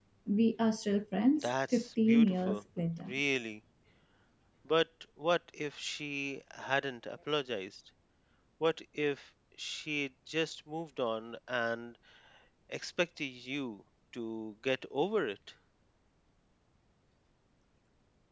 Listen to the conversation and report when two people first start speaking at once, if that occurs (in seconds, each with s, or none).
1.4 s